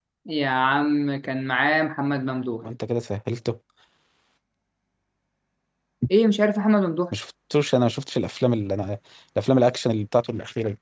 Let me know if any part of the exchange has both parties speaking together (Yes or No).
No